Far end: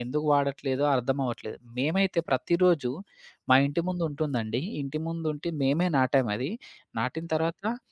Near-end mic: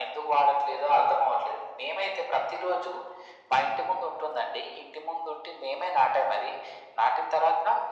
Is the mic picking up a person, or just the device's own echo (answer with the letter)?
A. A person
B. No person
B